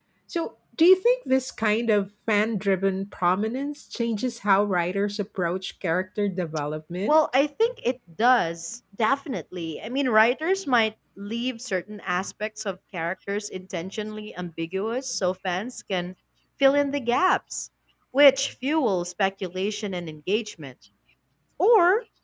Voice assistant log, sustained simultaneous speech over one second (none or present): none